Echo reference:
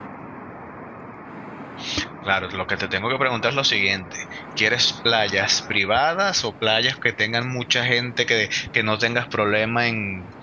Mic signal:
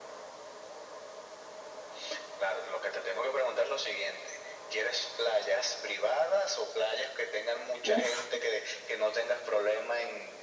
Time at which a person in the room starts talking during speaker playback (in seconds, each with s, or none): 7.8 s